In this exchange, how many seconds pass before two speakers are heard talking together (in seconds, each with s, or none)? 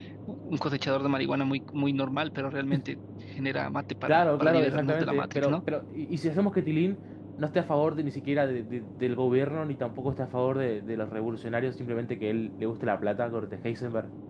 4.1 s